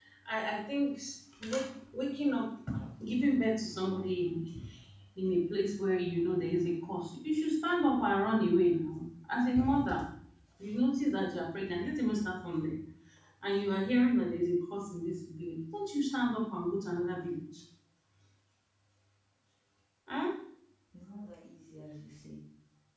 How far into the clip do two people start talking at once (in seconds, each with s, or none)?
none